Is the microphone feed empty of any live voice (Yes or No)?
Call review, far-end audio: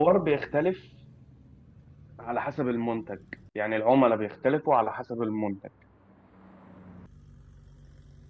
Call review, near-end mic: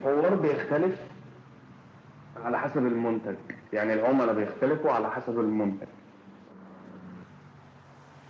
Yes